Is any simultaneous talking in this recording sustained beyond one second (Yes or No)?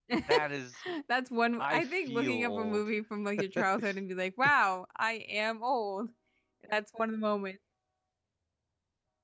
Yes